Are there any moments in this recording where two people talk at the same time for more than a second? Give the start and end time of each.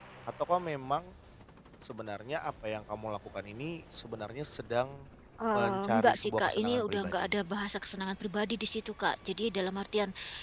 5.5-7.4

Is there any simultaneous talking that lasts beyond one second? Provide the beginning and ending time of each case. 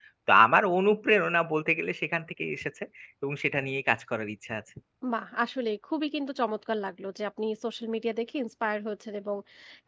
none

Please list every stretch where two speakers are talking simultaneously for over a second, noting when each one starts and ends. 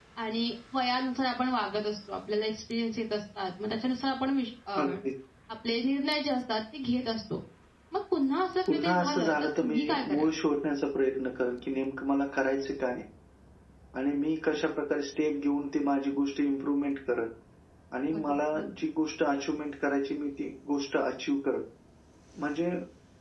8.7-10.3

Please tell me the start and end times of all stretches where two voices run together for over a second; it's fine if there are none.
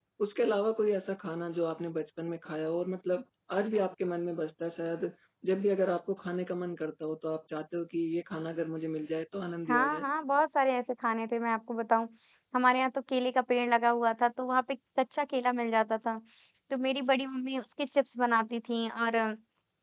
none

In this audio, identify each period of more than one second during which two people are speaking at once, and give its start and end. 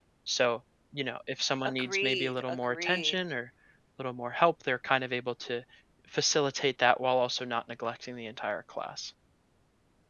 1.6-3.2

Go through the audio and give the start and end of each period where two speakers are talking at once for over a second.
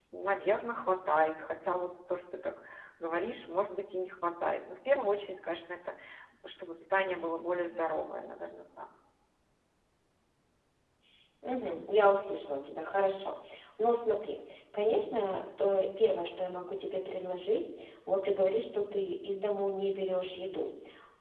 none

